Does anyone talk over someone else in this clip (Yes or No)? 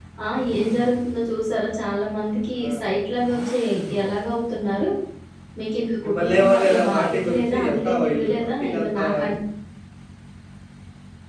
Yes